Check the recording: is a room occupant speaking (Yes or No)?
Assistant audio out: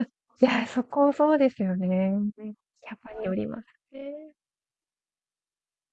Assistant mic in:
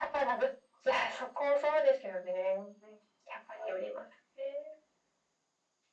No